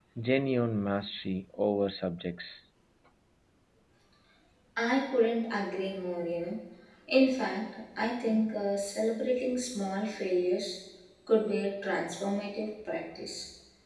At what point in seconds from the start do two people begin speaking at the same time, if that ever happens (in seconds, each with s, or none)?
none